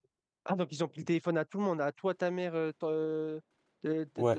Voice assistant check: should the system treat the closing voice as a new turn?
Yes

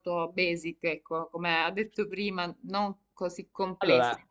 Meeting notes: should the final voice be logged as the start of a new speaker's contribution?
No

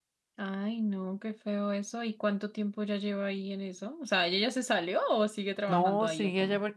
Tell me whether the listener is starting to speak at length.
Yes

